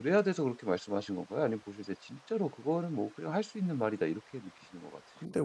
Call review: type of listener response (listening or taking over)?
taking over